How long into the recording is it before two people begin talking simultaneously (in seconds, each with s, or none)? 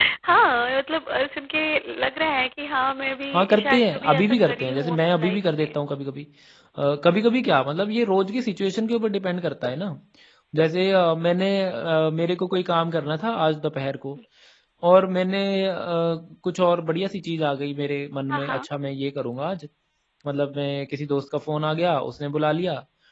3.3 s